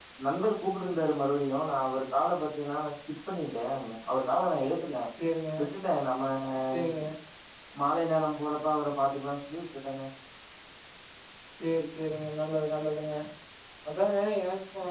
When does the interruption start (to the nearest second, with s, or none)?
none